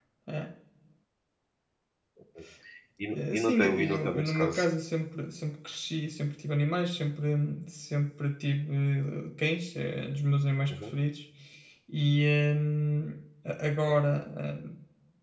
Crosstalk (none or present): present